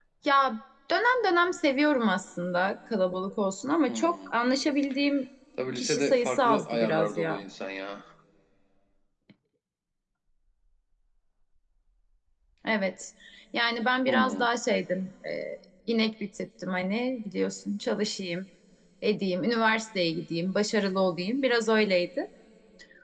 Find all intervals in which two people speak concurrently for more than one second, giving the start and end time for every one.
5.8-7.4

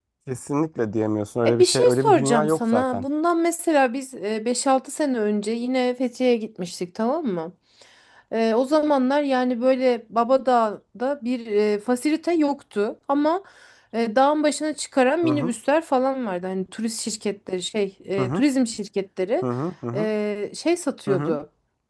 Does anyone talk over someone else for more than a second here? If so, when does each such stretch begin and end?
1.5-3.0

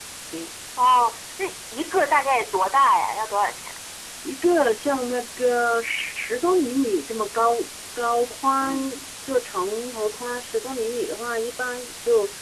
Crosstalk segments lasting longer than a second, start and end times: none

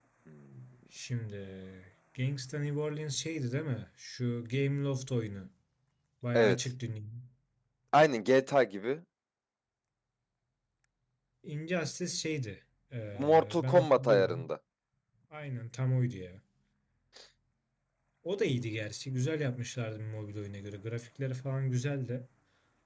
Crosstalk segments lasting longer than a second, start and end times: 13.2-14.5

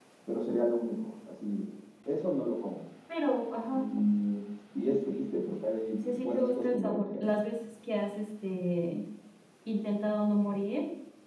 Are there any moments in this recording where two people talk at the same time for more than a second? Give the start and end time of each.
6.0-7.4

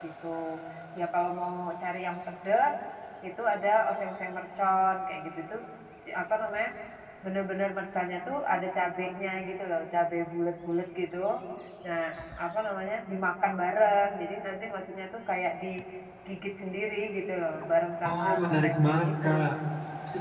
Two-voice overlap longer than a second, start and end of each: 18.1-19.3

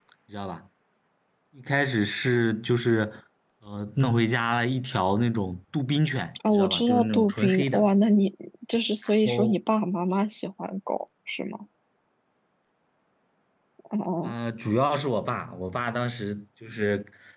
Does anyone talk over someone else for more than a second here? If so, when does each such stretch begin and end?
6.5-7.9

